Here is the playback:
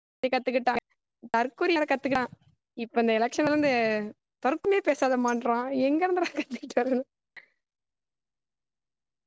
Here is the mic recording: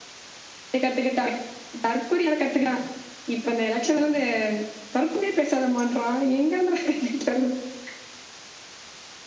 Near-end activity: none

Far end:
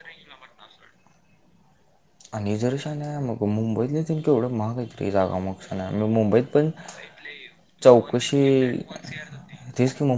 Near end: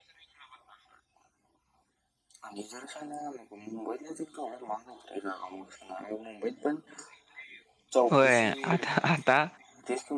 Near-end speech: present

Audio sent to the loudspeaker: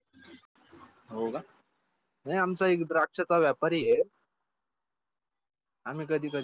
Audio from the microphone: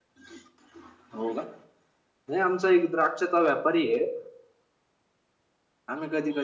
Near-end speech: none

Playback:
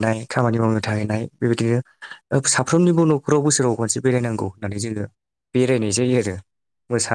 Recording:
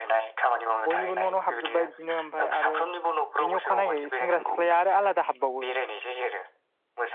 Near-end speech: present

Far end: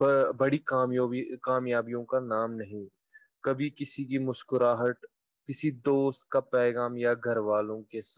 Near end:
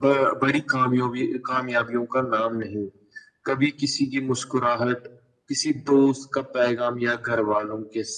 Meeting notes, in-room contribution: none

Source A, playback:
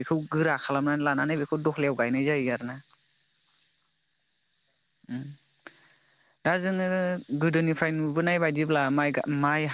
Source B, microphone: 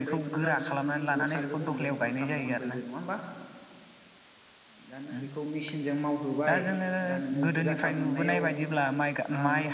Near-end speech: present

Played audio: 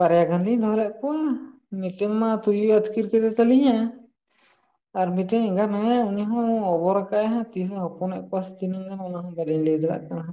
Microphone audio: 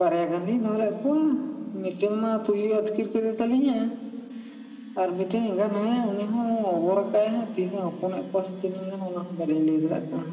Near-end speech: none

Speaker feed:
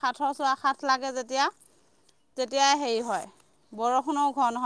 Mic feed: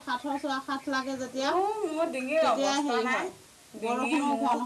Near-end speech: present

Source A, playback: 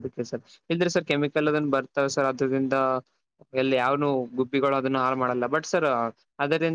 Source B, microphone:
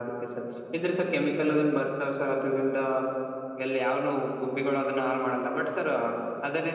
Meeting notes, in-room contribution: none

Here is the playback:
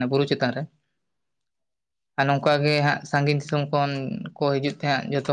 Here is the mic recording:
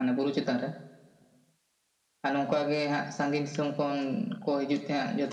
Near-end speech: none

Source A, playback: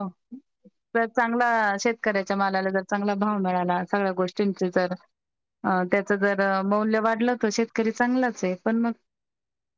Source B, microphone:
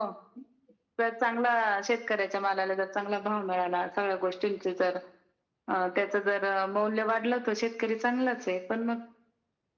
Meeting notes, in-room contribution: none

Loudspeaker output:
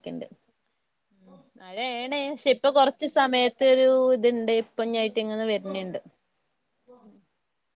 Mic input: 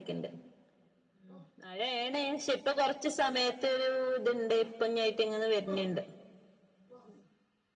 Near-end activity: none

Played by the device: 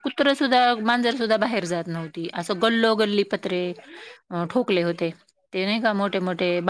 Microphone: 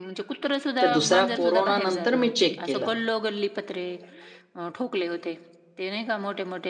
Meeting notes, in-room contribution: present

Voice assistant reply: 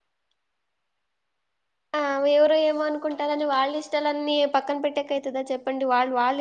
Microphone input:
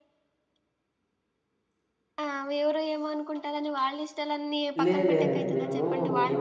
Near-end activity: present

